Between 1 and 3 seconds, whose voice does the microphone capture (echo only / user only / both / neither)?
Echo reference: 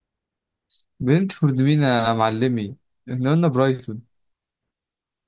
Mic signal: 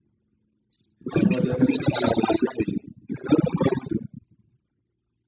both